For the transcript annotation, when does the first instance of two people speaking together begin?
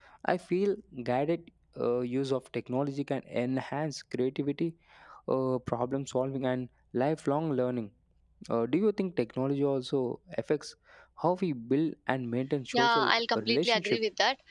13 s

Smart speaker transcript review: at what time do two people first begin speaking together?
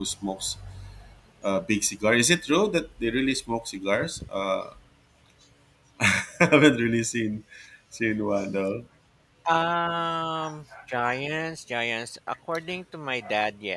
none

